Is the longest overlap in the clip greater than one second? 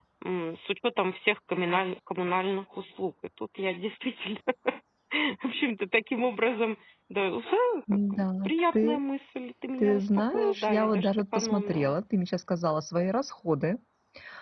Yes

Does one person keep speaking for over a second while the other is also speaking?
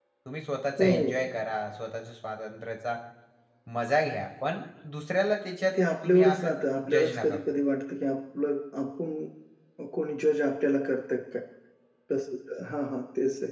Yes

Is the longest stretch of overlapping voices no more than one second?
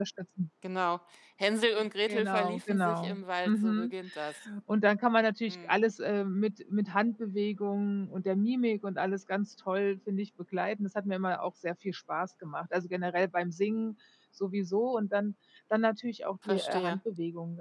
No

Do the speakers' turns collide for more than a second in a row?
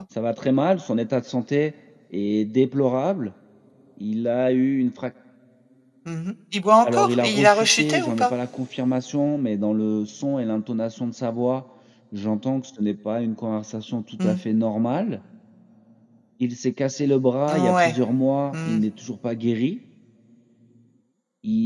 Yes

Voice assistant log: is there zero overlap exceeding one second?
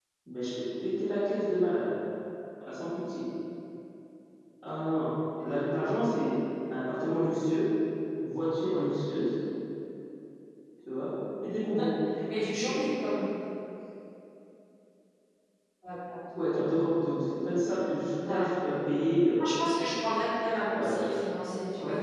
Yes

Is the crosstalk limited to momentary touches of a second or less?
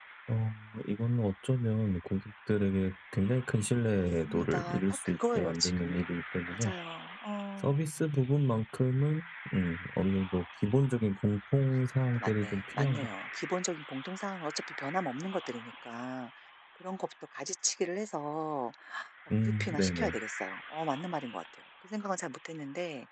No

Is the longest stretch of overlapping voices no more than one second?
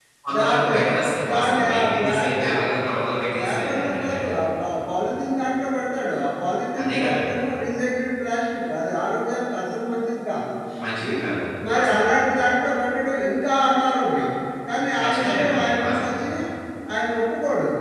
No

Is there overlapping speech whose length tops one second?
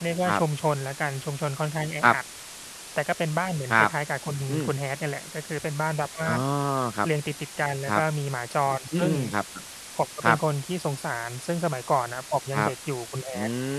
No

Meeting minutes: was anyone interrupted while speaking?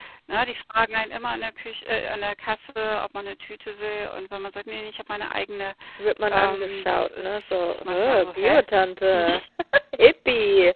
Yes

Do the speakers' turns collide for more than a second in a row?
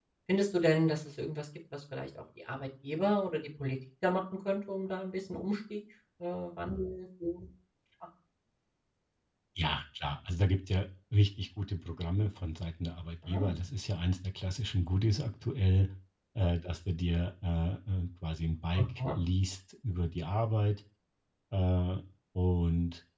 No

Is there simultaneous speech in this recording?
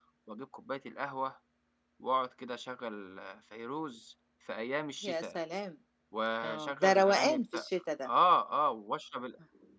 Yes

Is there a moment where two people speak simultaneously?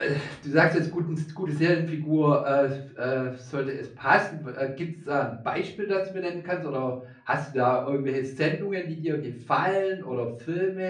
No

